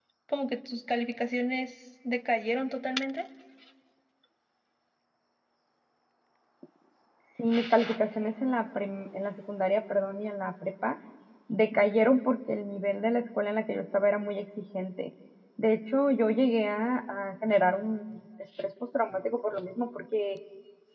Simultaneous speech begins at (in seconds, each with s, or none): none